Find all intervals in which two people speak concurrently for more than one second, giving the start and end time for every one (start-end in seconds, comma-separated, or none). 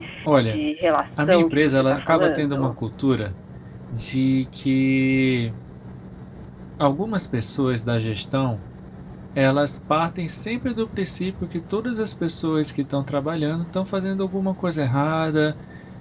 1.2-2.8